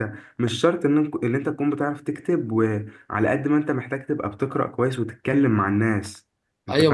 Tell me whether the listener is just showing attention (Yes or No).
No